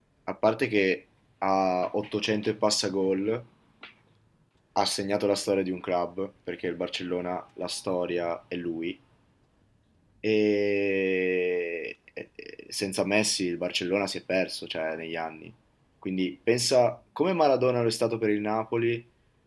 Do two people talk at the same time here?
No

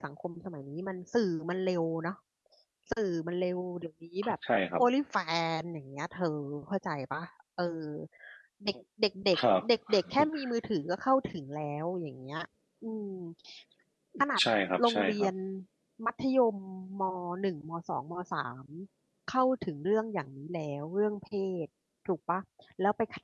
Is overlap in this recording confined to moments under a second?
Yes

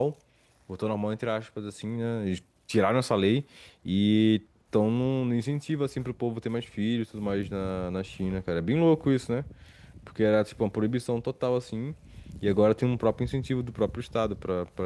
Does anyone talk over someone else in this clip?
No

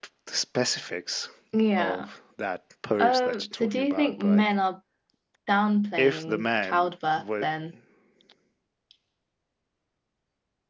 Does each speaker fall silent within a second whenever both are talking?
No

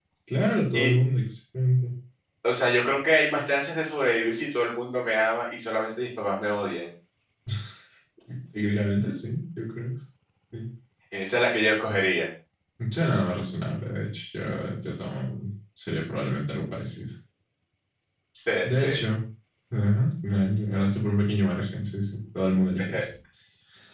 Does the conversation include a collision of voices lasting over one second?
No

